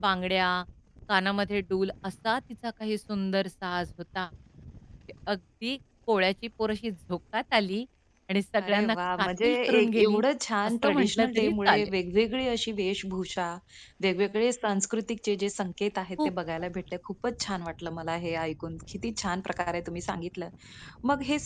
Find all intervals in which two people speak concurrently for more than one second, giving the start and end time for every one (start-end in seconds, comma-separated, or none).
8.6-10.2, 10.7-11.9